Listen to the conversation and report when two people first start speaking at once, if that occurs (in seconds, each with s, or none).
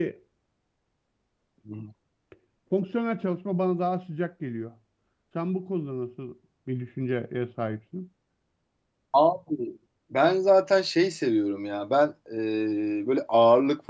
none